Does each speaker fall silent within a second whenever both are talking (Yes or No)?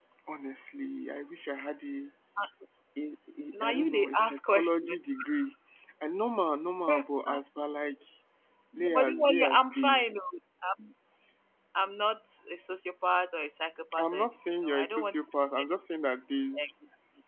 No